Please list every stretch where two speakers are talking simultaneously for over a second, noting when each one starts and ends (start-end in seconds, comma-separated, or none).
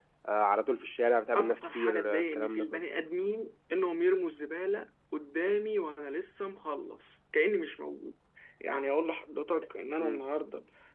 1.4-2.8